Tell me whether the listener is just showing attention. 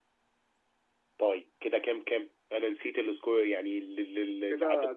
No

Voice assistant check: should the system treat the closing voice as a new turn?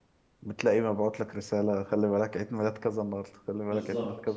Yes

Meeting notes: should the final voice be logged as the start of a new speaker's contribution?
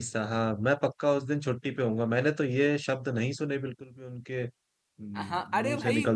Yes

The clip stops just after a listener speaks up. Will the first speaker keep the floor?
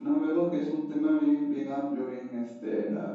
Yes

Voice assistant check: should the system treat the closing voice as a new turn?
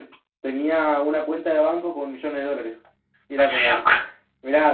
No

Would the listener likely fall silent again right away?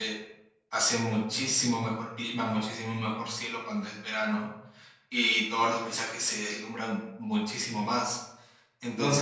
Yes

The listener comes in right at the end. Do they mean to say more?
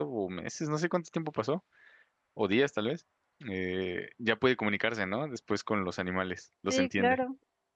Yes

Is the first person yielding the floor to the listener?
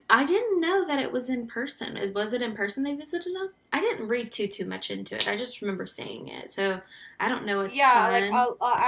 Yes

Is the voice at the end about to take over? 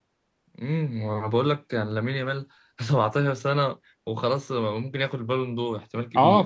Yes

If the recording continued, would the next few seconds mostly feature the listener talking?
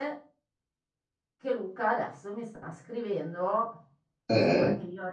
No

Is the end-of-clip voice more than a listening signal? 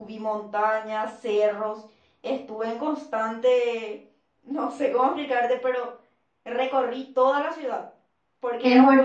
Yes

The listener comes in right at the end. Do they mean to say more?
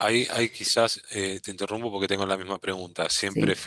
No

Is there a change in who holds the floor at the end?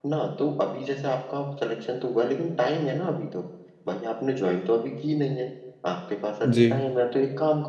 No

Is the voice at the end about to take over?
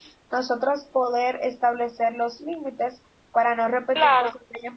Yes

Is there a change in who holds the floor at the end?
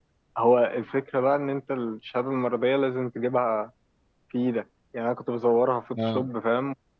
No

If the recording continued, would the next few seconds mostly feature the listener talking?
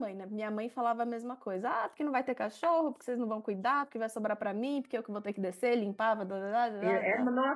Yes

